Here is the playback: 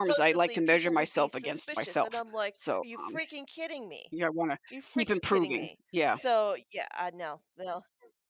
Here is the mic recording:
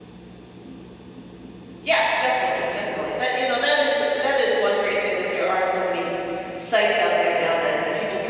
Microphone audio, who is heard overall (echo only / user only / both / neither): user only